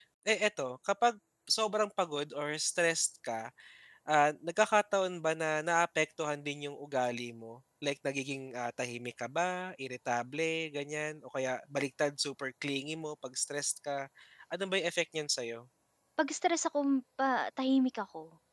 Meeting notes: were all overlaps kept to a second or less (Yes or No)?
Yes